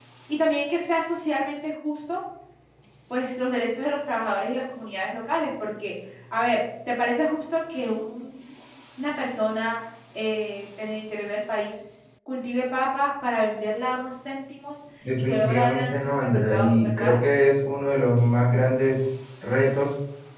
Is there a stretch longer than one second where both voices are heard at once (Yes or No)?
Yes